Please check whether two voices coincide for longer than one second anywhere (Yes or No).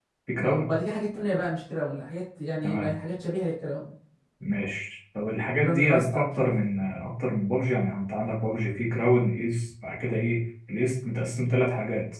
Yes